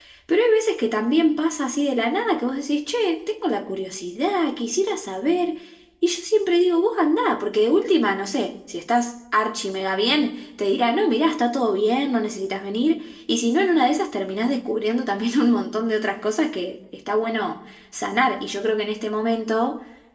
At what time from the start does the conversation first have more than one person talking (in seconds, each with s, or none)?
none